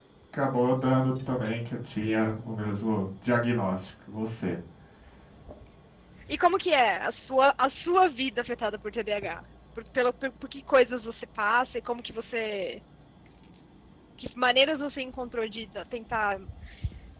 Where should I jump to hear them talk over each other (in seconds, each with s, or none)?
none